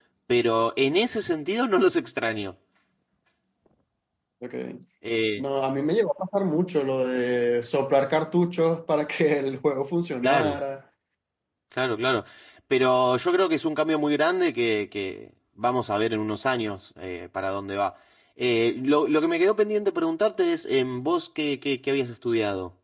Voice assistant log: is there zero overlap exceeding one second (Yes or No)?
Yes